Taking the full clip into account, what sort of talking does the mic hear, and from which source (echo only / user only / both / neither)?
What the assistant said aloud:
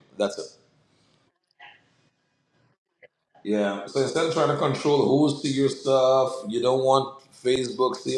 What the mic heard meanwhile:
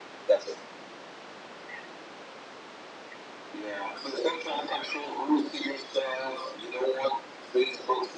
echo only